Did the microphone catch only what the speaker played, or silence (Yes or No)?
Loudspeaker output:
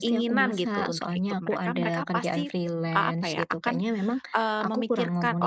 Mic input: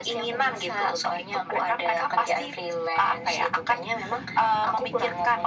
Yes